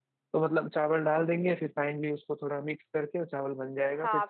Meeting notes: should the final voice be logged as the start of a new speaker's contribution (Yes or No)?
Yes